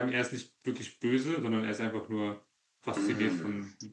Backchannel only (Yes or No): No